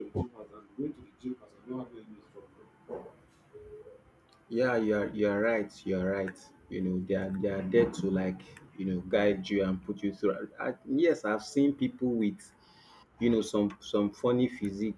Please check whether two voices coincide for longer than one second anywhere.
No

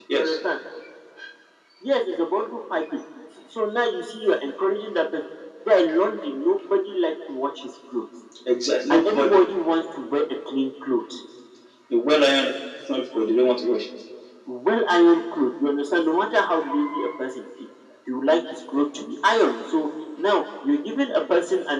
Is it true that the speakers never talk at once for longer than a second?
Yes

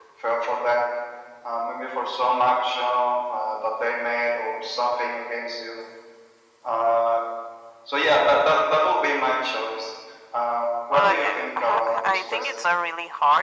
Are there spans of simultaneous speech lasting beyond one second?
Yes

